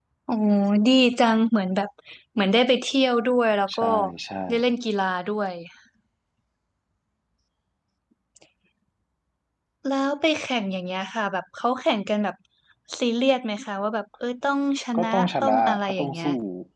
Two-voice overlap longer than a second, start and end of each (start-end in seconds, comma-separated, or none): 15.0-16.3